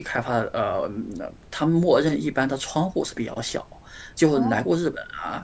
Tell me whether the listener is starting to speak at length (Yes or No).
No